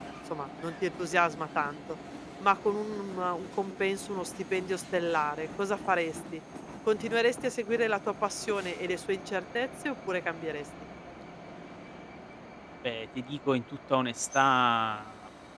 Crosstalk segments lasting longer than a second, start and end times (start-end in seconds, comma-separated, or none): none